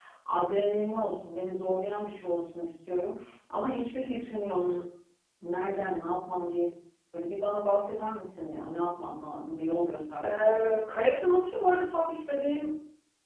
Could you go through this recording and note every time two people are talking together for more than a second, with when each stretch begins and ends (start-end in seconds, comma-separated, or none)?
none